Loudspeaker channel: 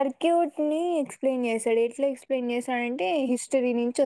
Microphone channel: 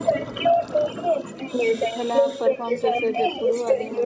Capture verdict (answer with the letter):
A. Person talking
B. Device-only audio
A